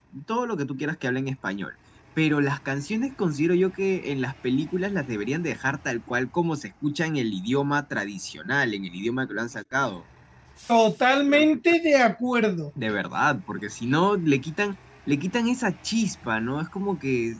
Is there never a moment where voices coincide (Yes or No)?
Yes